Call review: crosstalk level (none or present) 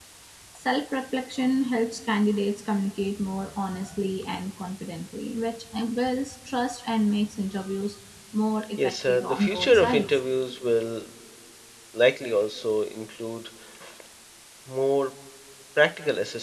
present